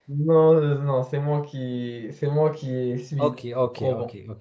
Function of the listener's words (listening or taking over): taking over